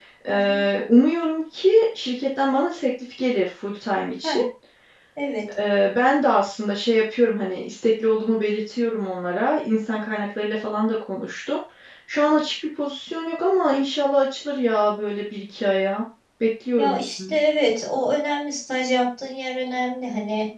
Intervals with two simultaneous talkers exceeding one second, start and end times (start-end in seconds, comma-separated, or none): none